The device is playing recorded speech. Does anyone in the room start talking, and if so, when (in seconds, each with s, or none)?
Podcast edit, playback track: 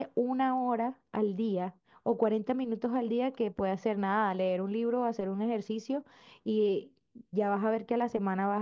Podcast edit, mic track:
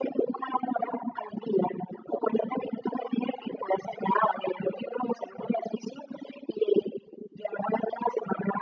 none